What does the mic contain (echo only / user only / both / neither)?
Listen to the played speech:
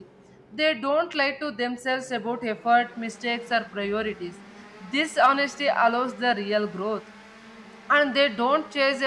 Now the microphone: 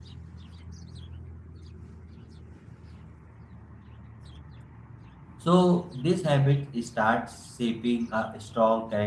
user only